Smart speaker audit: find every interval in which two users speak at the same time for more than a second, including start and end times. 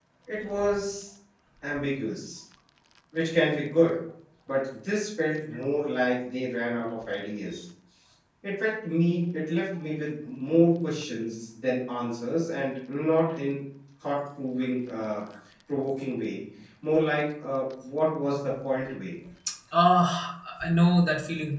none

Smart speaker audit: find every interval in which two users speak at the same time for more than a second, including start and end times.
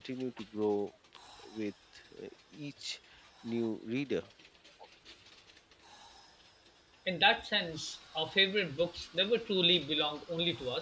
none

